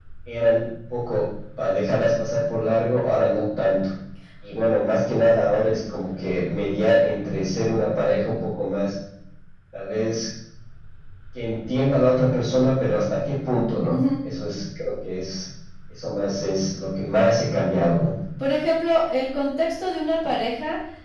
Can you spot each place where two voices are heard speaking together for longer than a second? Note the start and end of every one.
none

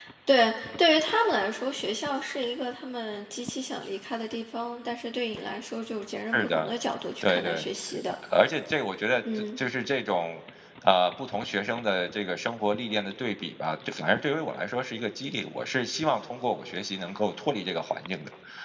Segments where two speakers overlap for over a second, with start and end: none

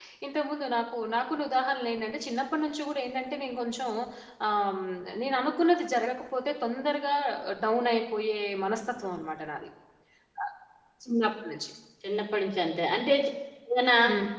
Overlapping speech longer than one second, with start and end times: none

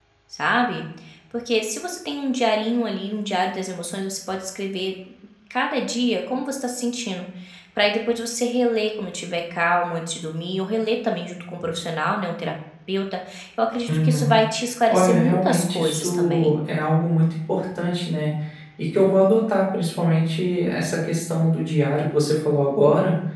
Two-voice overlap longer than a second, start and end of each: 14.9-16.6

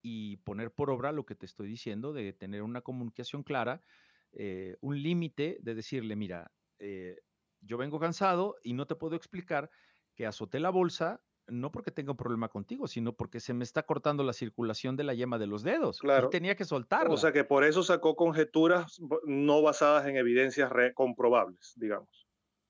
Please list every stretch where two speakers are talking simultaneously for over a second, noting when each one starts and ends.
none

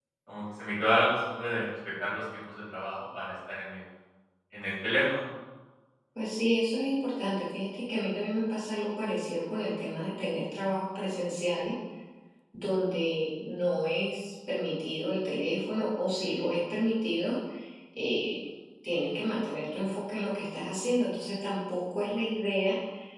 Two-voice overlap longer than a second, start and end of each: none

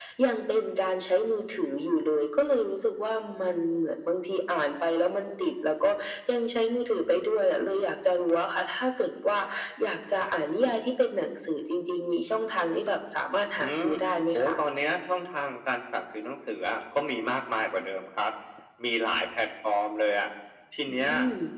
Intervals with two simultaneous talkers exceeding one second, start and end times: none

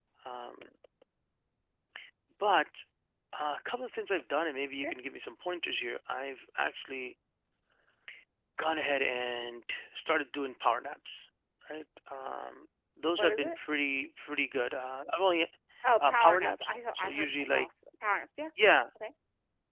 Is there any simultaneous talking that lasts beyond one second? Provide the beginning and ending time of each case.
16.0-17.7

